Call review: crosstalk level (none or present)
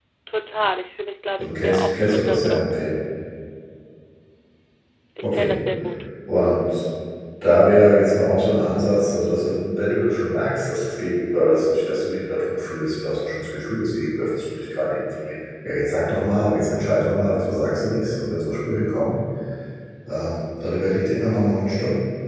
present